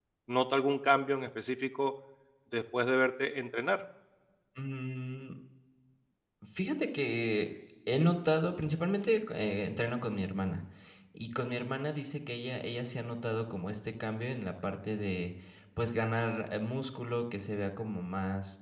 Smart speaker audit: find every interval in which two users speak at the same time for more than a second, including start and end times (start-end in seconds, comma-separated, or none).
none